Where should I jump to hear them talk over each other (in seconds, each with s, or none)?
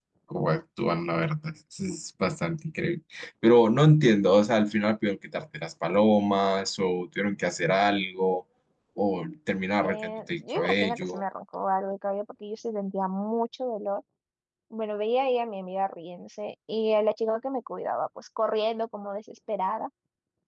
9.8 s